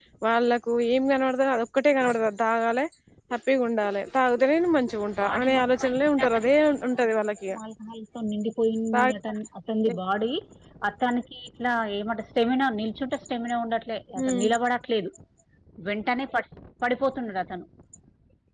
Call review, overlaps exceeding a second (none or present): present